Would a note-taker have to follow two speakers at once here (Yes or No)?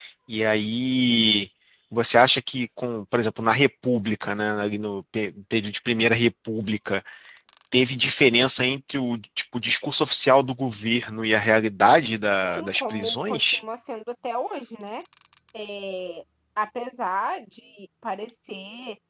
Yes